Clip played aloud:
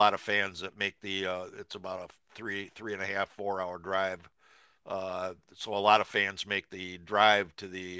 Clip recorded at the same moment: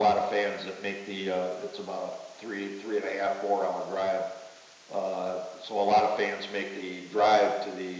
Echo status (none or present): present